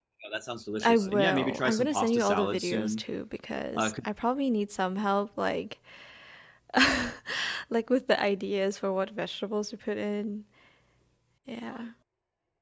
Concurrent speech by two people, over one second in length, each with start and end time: 0.8-3.0

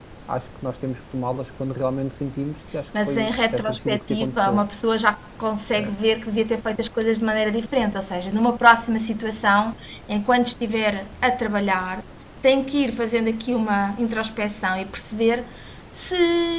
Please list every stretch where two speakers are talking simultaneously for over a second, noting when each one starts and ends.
3.1-4.6

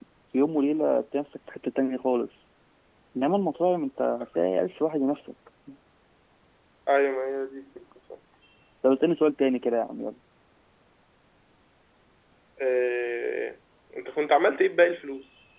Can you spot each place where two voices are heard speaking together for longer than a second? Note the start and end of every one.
none

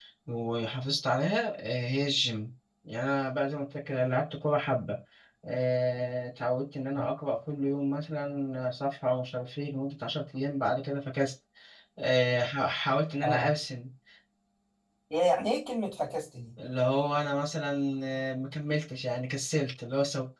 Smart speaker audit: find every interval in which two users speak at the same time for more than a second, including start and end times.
none

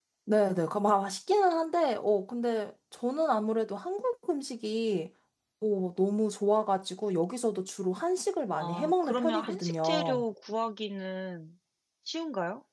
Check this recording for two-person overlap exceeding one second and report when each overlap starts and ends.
8.6-10.2

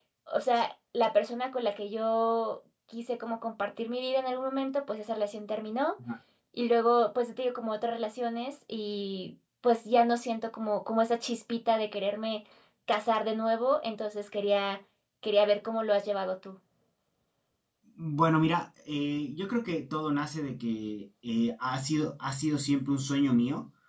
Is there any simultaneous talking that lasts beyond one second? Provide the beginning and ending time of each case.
none

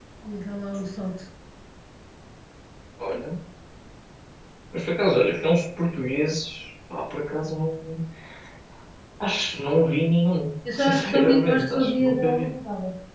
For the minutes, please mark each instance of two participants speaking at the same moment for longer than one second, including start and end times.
10.7-12.5

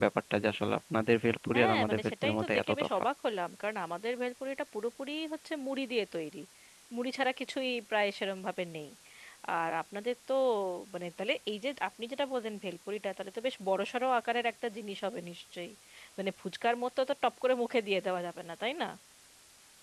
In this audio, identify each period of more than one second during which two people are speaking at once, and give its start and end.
1.5-3.0

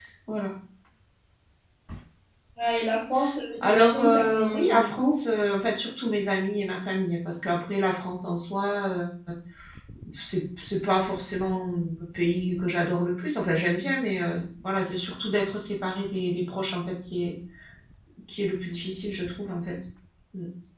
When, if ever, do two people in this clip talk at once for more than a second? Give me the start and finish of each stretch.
3.6-5.2

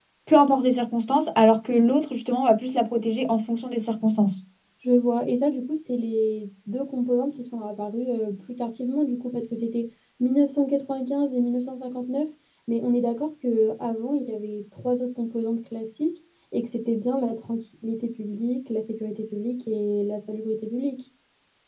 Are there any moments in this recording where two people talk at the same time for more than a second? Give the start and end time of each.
none

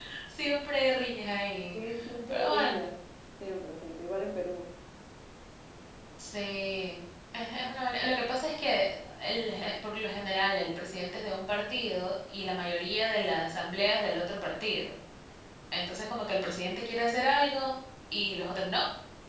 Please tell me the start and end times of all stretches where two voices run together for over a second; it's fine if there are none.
none

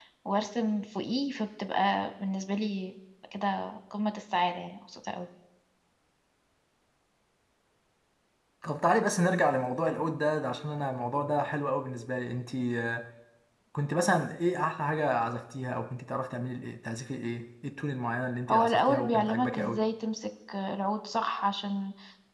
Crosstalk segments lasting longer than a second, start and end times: 18.5-19.9

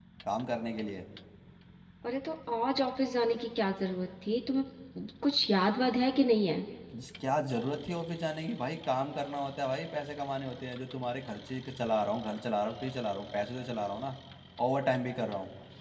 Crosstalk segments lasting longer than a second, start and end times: none

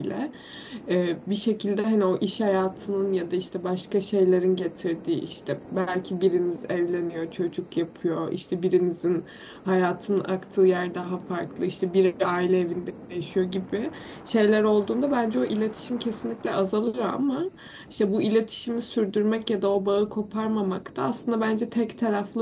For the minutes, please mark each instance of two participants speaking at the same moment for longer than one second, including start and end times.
none

